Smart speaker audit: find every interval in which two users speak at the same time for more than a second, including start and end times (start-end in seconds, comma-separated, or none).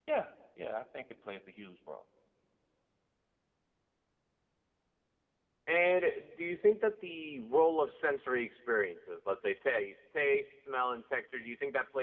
none